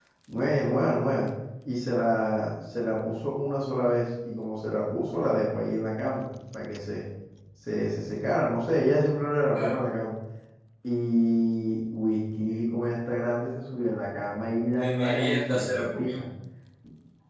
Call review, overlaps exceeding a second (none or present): present